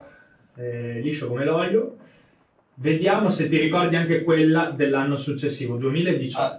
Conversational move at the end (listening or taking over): taking over